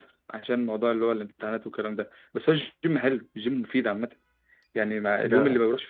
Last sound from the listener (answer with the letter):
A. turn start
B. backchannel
B